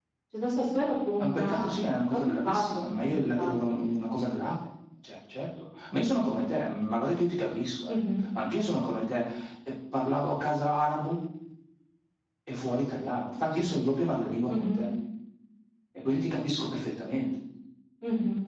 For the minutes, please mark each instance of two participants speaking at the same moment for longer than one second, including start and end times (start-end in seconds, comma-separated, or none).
1.2-3.5